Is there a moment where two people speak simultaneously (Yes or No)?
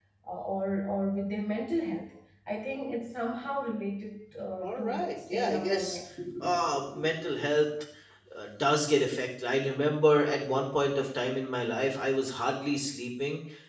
Yes